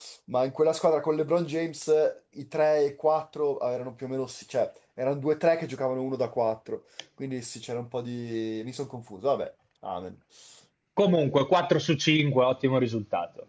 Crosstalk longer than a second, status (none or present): none